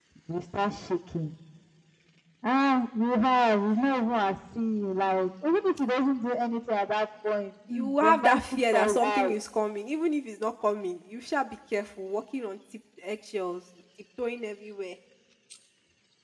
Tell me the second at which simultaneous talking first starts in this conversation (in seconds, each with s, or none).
7.7 s